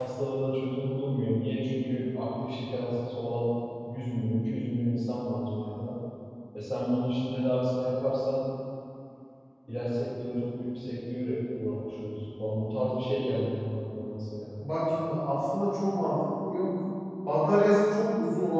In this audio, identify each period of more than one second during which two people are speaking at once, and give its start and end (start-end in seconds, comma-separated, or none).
none